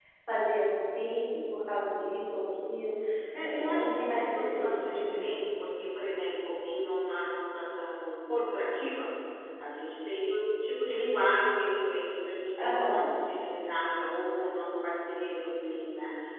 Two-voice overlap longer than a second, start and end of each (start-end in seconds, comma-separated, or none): 3.4-5.2